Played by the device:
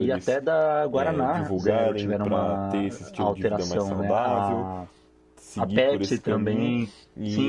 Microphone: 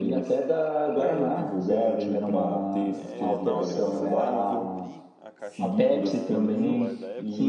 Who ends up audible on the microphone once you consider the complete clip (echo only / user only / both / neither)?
both